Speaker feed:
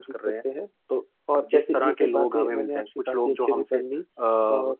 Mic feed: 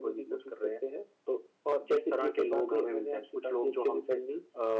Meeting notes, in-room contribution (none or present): none